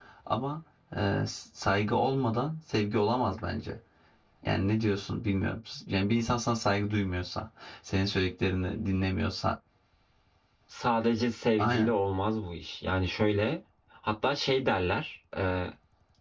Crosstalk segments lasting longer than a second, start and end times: none

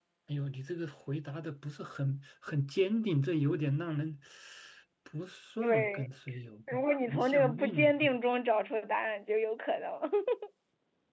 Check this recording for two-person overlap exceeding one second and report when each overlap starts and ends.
6.7-8.1

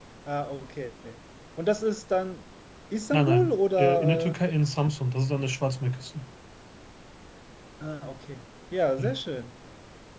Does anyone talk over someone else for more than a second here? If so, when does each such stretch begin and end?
3.1-4.4

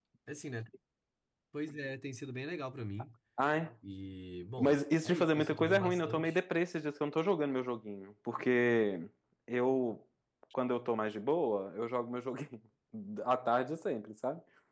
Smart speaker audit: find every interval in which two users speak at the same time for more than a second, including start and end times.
4.6-6.4

